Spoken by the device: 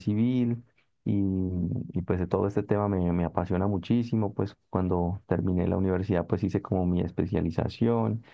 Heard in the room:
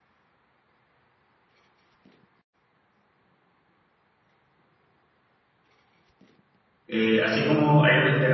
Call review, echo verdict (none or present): none